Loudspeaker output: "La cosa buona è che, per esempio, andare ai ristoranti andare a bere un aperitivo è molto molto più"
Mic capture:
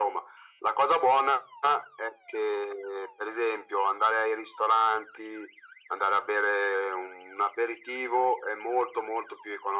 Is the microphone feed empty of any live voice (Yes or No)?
Yes